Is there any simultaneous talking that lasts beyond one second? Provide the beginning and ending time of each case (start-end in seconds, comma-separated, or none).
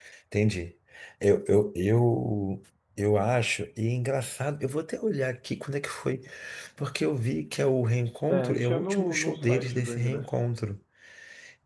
8.3-10.3